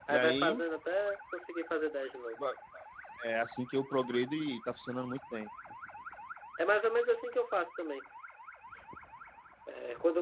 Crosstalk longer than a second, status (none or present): none